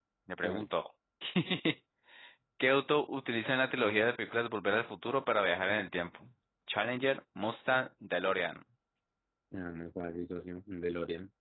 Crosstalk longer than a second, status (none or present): none